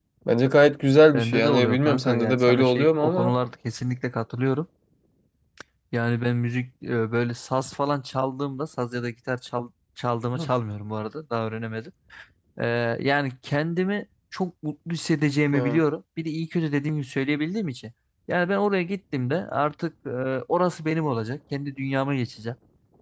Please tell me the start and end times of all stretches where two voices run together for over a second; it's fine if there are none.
1.1-3.3

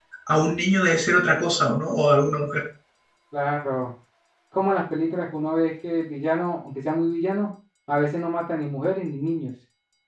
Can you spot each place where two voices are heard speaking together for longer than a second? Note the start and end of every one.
none

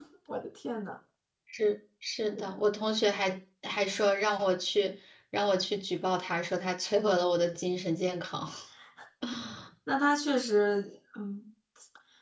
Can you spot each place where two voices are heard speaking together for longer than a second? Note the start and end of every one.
none

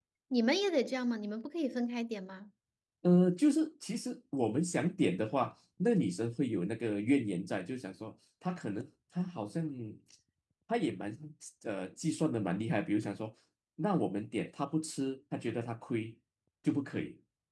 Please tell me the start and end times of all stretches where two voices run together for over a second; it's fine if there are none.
none

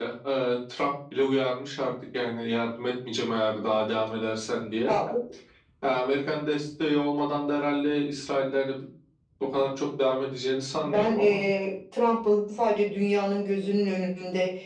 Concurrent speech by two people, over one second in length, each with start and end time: none

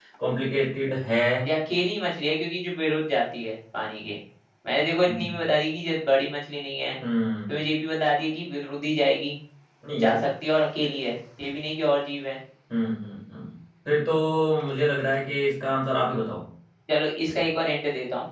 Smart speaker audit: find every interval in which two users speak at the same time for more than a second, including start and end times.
none

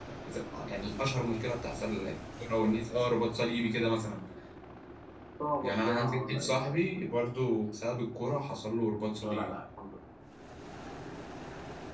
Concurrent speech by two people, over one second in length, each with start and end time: 5.6-6.8

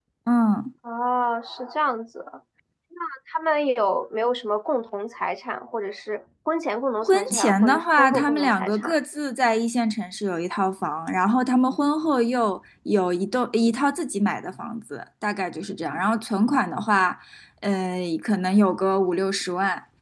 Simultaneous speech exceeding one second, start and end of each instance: 7.0-9.0

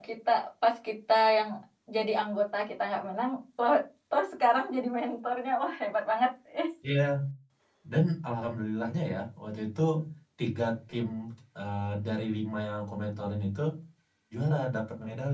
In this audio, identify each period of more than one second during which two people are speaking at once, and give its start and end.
none

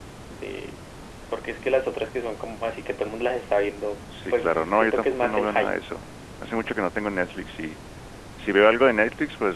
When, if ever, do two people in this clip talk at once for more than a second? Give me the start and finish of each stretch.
4.3-5.7

